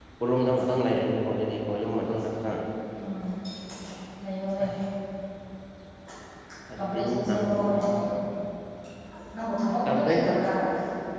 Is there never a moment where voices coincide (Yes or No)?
No